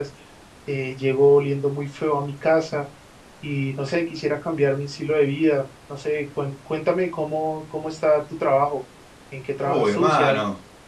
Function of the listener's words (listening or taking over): taking over